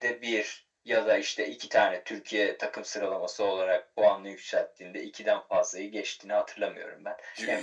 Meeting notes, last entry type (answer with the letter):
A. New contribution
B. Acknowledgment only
B